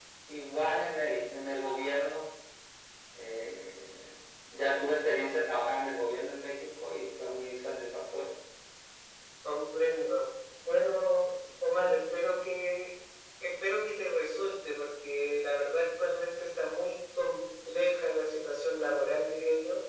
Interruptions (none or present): none